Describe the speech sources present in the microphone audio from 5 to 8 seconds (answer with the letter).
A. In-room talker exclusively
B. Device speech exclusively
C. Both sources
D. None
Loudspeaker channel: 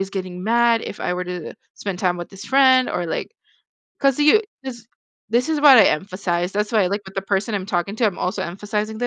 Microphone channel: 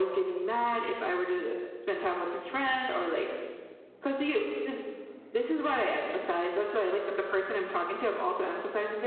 B